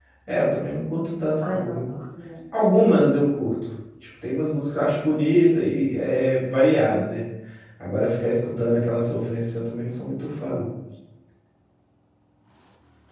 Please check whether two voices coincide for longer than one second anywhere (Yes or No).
No